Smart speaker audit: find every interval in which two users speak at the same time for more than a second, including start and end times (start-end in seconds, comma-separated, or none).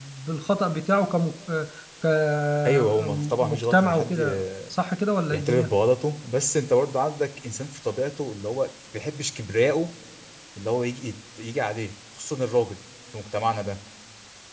2.7-4.4